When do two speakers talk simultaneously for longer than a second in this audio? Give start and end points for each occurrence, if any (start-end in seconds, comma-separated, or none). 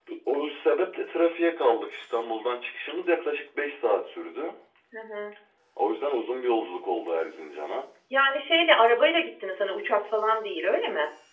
none